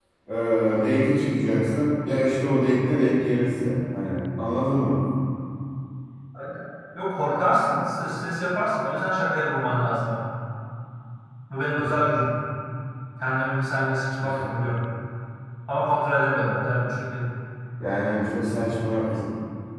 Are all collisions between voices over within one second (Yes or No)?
Yes